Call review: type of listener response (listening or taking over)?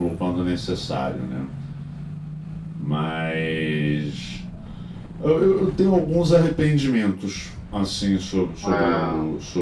listening